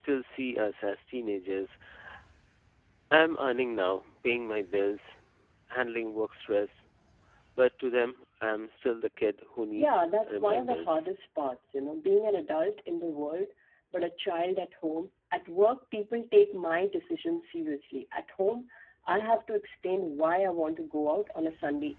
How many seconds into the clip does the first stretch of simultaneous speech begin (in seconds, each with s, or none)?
9.8 s